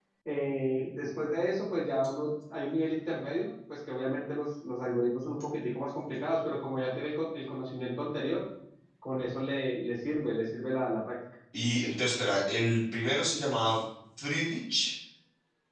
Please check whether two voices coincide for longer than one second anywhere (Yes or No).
No